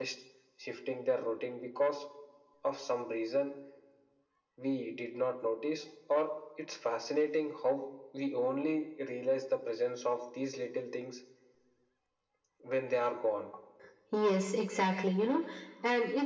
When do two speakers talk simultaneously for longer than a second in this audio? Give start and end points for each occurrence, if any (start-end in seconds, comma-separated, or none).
none